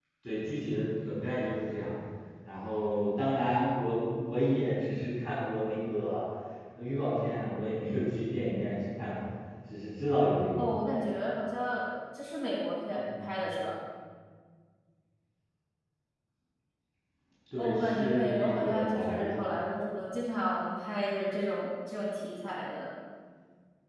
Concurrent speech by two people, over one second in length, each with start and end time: 17.6-19.3

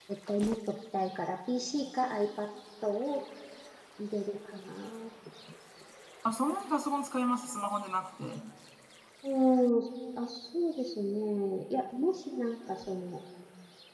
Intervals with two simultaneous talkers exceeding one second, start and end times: none

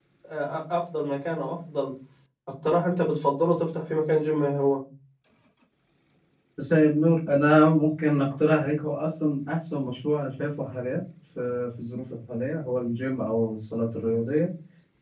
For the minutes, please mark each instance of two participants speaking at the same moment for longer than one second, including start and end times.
none

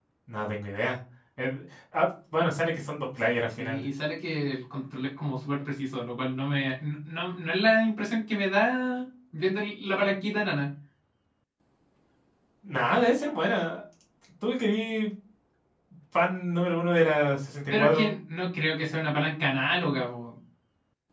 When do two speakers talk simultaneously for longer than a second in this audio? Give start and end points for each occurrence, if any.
none

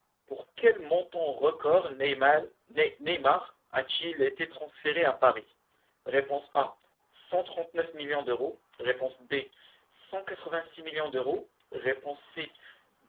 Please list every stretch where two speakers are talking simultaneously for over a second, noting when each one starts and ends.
none

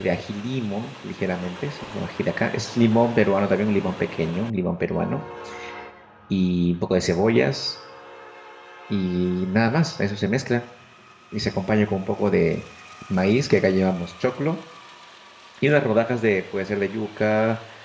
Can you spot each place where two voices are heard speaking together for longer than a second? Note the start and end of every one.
none

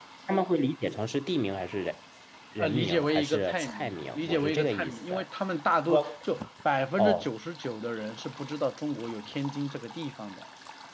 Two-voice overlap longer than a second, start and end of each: 2.6-5.1

